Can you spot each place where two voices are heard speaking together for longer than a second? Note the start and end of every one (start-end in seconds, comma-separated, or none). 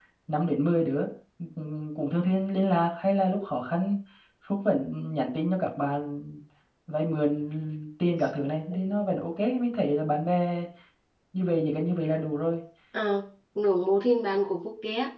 none